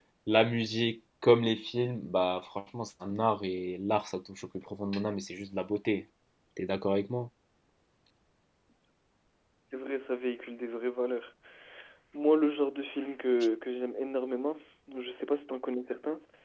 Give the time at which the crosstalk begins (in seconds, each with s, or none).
none